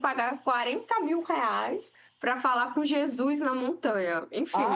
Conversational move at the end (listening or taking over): taking over